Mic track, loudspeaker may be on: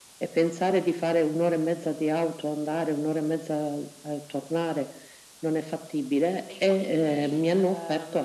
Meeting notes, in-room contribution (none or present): present